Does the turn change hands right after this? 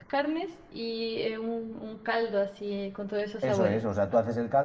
Yes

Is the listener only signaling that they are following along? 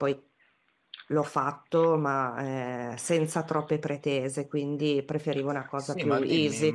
No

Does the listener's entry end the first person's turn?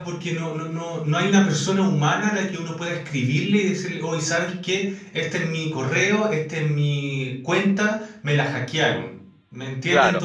Yes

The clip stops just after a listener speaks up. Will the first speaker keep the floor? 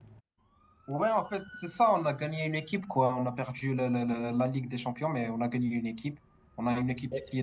Yes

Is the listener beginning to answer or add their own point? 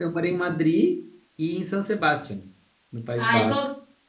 Yes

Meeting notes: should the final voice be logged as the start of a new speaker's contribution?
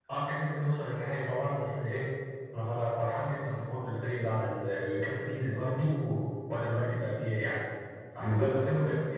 Yes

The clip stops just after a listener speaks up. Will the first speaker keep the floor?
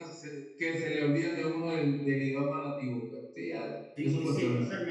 No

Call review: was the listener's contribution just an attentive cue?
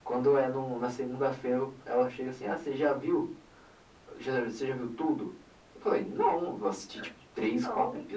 Yes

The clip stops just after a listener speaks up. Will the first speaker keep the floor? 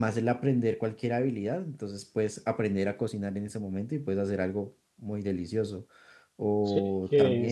No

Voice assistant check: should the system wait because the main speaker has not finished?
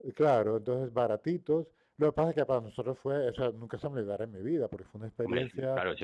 No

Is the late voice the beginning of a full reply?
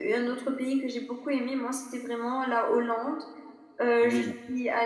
No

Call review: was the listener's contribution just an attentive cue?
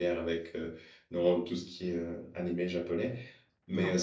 Yes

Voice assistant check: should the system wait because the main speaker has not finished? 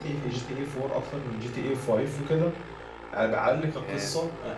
Yes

